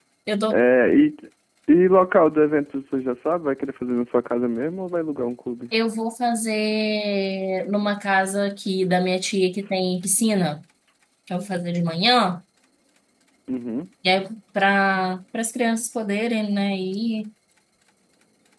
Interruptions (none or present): none